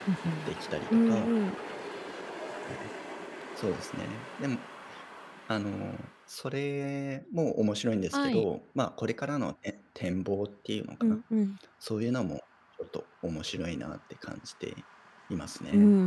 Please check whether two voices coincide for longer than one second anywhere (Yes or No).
No